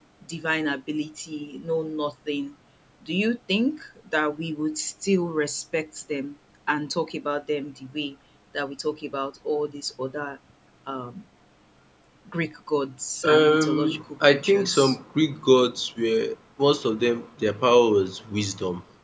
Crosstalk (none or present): present